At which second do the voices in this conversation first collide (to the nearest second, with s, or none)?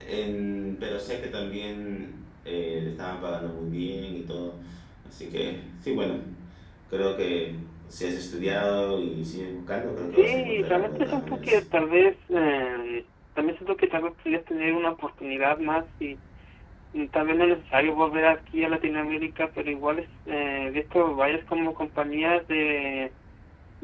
10 s